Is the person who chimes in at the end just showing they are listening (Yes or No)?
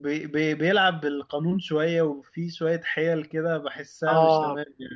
No